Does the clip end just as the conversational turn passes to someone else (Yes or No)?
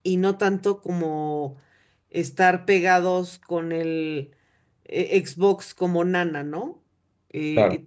No